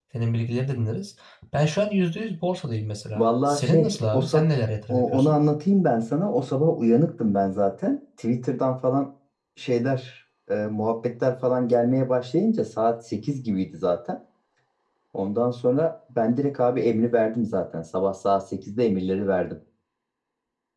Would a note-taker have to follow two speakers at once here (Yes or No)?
Yes